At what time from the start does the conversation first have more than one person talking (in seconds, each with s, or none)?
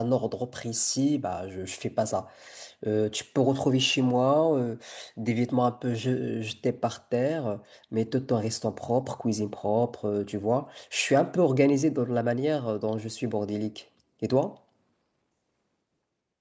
none